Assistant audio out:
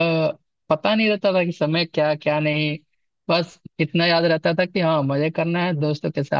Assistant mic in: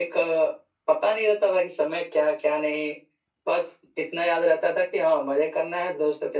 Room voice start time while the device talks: none

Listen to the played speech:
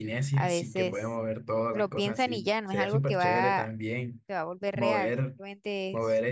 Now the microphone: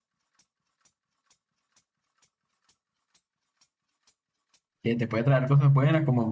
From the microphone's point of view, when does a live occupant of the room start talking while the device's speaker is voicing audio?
4.8 s

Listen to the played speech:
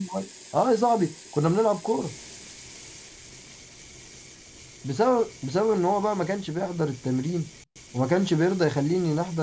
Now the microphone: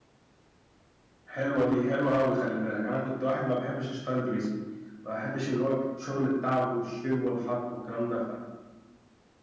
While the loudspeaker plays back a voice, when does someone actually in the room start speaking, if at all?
1.2 s

